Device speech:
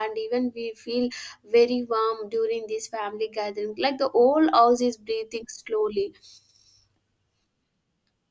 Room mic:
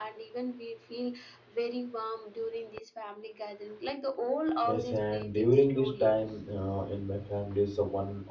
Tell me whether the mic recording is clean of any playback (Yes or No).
No